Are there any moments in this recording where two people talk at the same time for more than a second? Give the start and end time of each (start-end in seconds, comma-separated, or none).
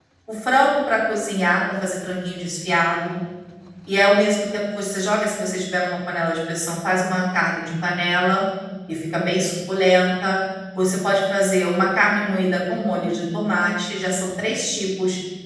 none